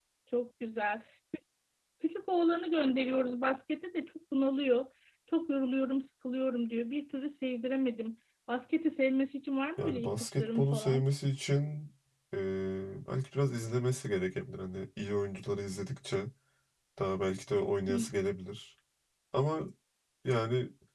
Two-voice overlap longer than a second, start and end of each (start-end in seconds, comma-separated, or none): 9.8-11.1